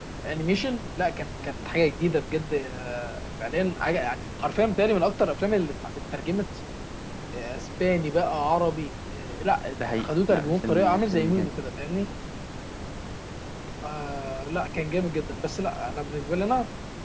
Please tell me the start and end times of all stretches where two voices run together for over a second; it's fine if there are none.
9.9-11.5

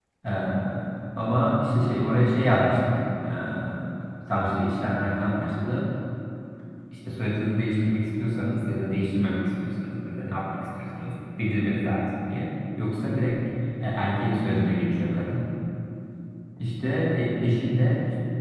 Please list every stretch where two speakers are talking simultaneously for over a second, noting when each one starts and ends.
none

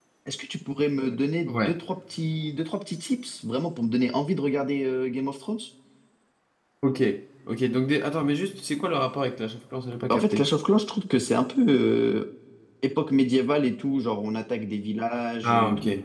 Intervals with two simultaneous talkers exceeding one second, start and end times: none

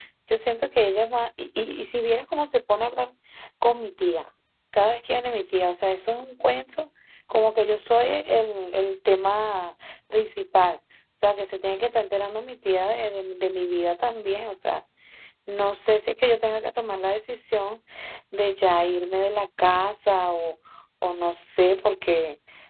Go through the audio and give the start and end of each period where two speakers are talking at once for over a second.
none

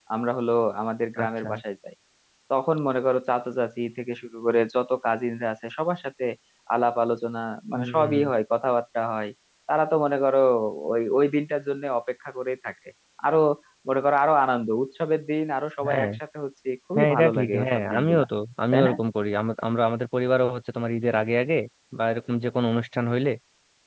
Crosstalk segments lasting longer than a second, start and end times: 16.9-18.2

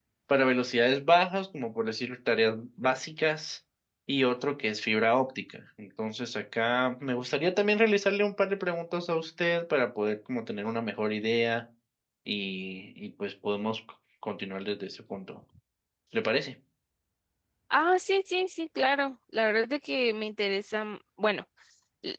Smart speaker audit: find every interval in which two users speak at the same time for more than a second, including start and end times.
none

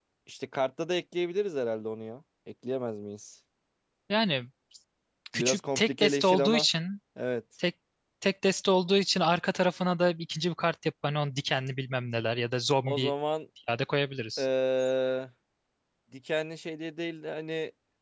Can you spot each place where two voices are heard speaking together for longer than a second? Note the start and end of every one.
5.3-6.7

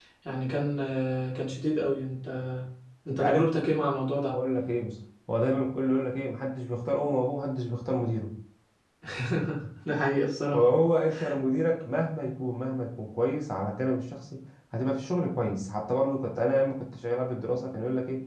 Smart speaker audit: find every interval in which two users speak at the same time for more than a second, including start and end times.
none

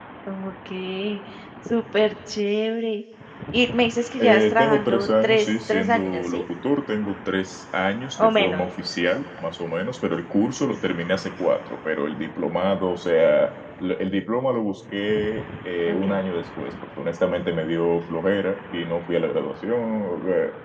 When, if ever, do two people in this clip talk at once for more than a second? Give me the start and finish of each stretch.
4.2-6.4

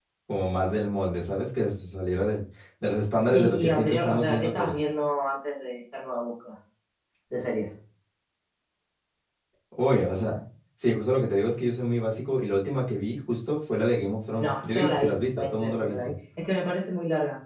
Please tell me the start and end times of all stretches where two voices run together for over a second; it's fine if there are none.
3.3-4.8, 14.4-16.1

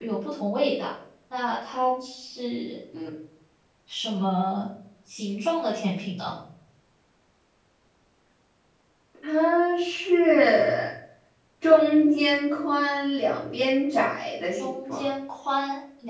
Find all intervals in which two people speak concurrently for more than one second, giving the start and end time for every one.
none

